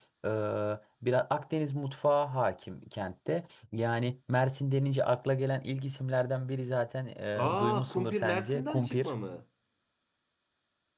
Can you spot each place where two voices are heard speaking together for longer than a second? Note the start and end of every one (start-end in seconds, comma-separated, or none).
7.4-9.1